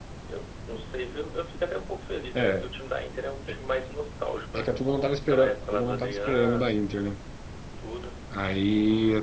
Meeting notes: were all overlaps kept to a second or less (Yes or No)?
No